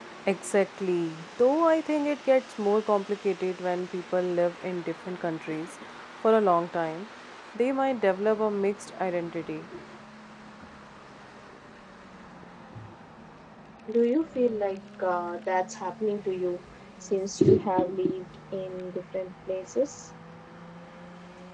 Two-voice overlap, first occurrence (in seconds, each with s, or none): none